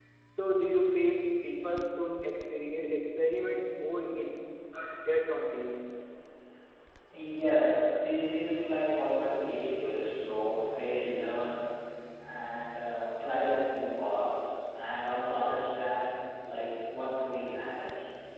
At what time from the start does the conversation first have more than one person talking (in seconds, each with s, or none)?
none